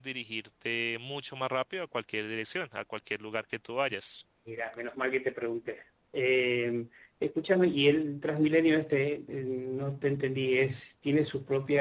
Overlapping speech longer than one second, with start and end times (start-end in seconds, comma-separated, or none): none